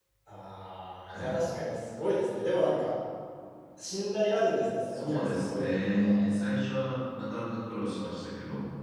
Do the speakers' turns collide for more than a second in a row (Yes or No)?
Yes